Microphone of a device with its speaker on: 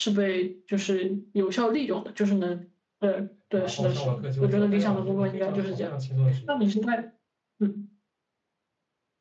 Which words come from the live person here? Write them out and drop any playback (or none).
然后上完课就走。大学老师是个非常好、非常轻松的职业。